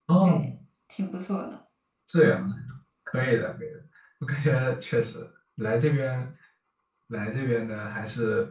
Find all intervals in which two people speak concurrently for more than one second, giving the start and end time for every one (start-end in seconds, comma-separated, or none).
none